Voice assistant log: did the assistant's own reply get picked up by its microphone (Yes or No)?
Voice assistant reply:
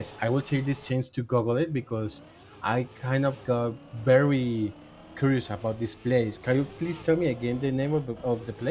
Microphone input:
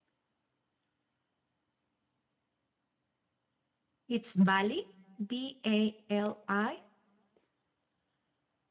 No